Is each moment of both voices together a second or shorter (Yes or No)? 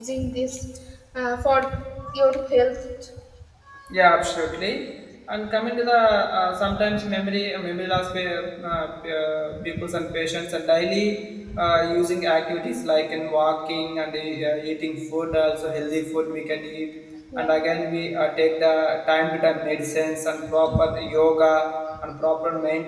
Yes